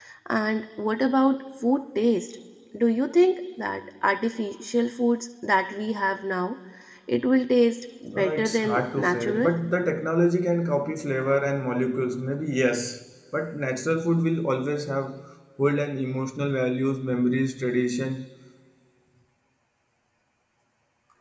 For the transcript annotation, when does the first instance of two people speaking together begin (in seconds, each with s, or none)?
8.1 s